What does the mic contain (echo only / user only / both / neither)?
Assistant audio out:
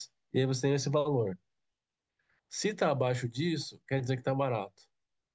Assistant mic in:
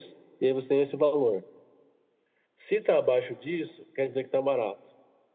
echo only